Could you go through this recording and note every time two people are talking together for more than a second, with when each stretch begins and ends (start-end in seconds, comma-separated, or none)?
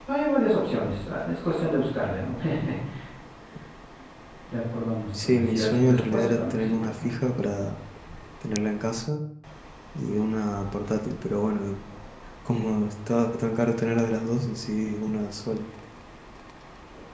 5.2-7.1